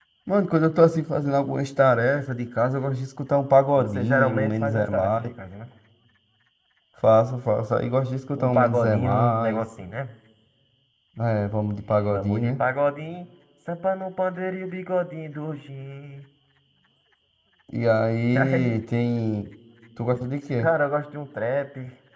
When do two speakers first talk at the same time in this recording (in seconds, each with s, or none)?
3.8 s